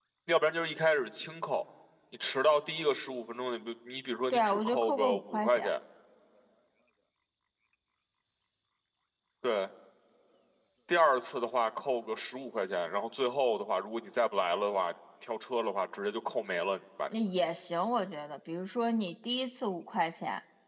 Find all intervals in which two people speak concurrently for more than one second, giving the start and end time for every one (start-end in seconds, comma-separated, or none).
4.3-5.7